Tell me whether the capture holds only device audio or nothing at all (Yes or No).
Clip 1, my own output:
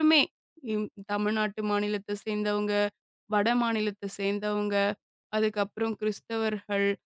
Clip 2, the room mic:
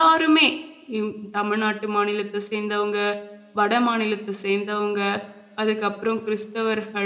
Yes